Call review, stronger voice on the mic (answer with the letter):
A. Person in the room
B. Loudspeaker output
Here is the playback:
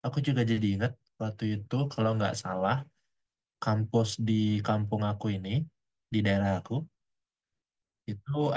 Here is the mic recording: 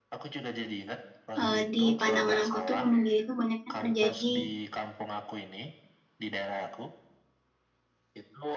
A